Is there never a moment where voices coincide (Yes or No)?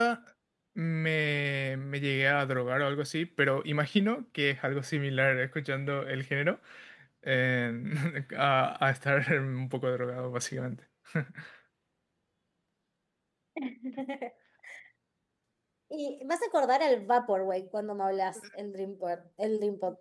Yes